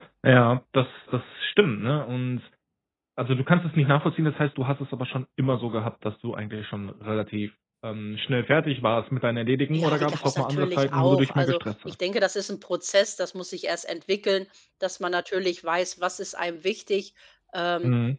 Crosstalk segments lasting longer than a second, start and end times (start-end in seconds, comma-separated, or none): 9.7-12.0